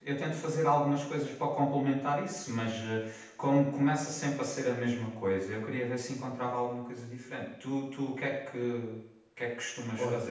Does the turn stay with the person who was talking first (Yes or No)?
No